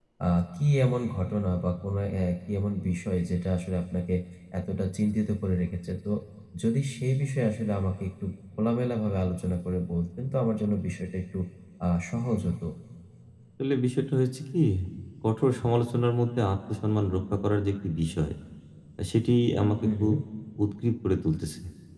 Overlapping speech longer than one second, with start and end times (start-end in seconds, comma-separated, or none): none